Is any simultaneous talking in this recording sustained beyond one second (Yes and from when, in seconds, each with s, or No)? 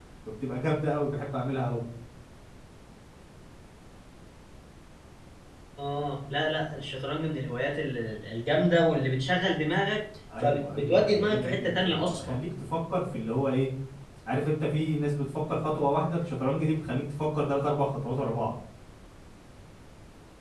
Yes, from 10.3 s